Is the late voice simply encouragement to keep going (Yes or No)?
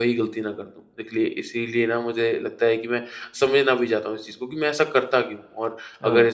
Yes